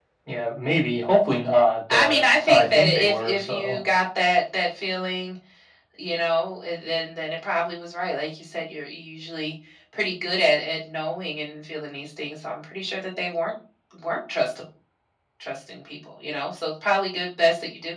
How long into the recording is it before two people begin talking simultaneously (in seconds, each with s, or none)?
1.9 s